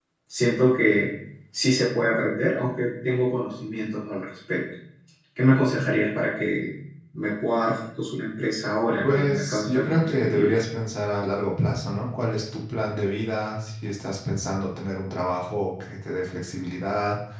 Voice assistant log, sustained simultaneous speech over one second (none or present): present